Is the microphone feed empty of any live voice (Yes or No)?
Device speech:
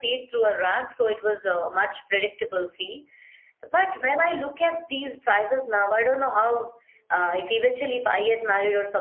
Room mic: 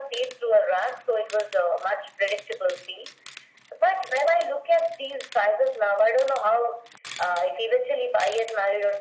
Yes